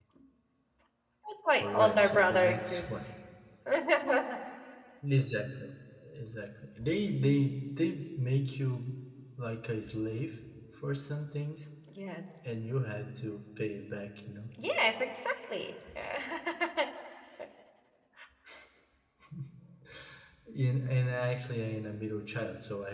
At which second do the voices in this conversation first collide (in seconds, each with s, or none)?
1.6 s